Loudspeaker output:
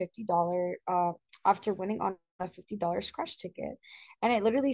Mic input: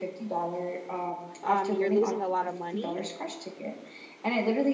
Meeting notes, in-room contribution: present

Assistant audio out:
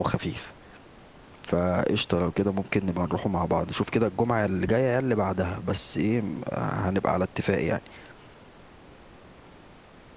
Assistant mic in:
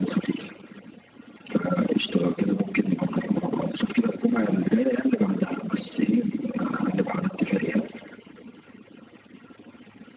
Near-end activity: none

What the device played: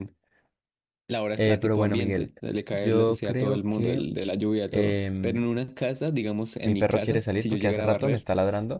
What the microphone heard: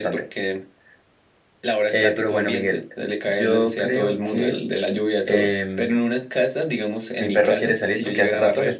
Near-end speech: none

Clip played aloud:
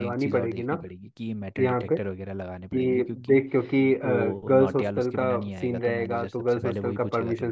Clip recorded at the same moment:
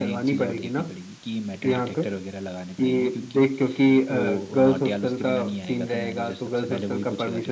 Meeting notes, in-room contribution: none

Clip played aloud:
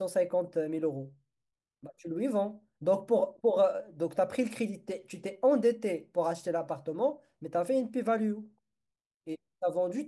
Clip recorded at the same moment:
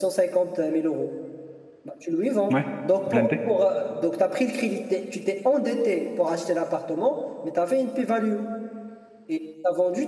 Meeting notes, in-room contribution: present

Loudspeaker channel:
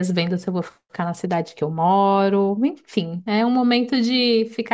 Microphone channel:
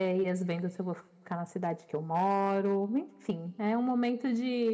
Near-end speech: none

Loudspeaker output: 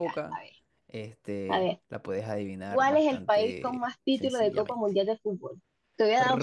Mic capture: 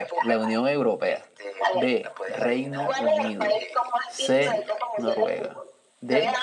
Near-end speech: present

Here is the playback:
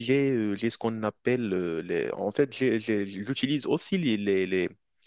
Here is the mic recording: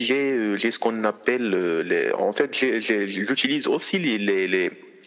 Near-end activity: none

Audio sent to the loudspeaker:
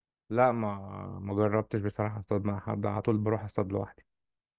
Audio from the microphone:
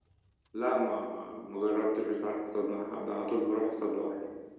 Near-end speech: none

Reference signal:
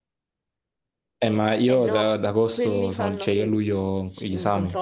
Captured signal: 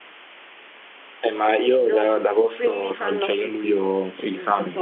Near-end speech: none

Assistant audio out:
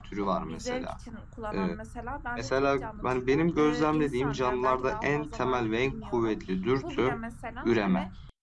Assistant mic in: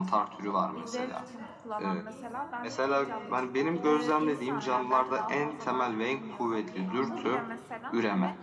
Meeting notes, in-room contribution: present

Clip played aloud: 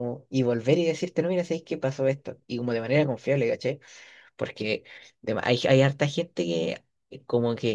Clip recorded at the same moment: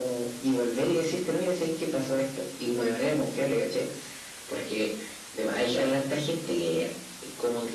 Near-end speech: none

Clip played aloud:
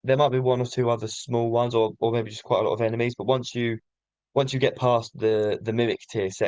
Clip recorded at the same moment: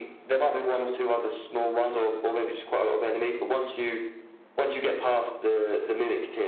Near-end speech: none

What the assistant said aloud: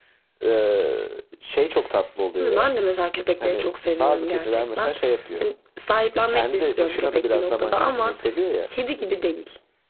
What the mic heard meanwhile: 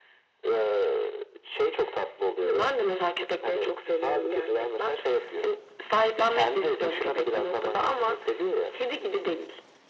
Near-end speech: none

